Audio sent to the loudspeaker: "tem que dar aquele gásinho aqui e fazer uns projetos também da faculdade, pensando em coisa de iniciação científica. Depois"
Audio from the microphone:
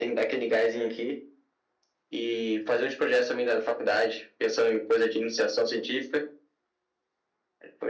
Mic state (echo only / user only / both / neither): echo only